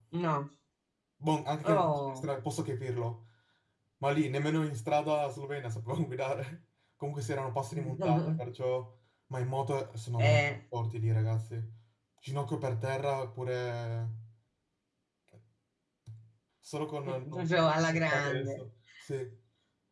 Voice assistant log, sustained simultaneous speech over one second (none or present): present